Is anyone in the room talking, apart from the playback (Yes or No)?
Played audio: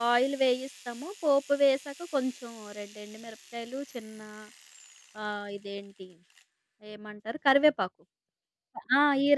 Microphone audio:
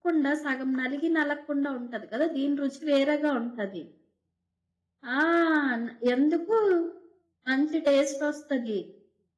Yes